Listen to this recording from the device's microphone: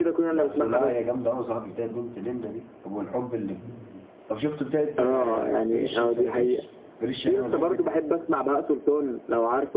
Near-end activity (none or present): present